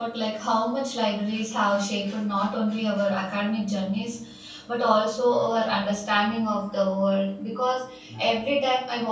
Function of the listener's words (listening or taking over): listening